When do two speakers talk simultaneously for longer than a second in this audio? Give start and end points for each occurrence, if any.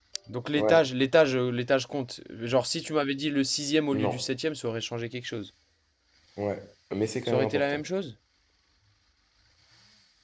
none

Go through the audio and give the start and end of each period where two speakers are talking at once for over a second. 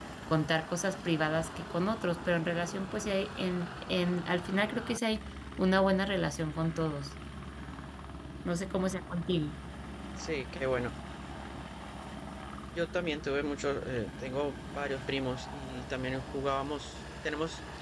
none

